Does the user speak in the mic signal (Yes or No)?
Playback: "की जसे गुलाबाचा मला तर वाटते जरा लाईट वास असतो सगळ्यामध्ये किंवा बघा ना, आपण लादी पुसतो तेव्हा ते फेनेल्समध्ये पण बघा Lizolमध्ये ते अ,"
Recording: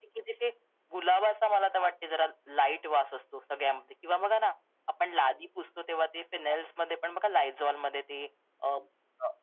No